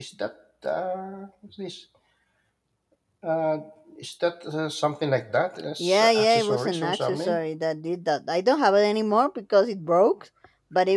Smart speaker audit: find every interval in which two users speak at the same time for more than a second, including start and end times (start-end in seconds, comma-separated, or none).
5.8-7.4